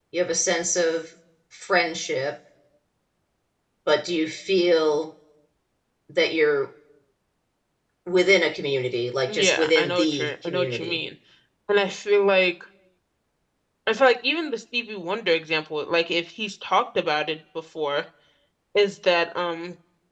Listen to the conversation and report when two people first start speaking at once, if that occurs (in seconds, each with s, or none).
9.3 s